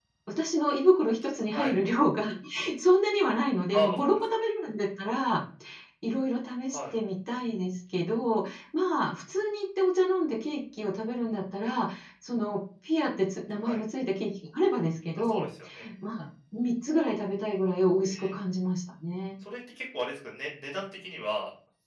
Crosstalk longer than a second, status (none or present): none